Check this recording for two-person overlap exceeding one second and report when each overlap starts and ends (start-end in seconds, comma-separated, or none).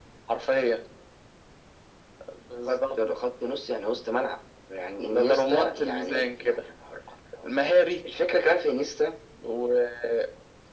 5.1-6.6